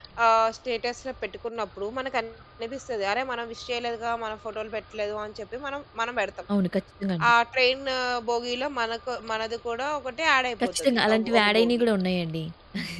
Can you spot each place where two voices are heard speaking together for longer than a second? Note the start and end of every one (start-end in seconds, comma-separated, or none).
10.6-11.8